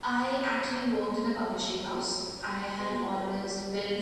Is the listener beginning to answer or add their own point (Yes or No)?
No